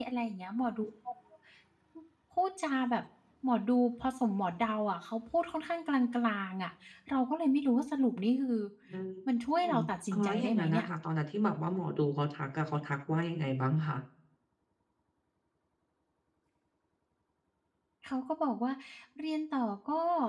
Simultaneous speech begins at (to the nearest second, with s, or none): 10 s